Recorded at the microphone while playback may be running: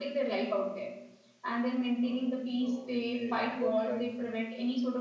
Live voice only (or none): uh, you know with the work life and uh,